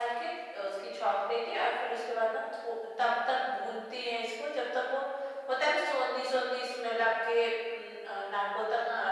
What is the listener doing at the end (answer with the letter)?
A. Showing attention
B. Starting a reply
B